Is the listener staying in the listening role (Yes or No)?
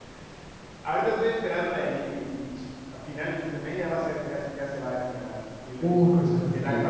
No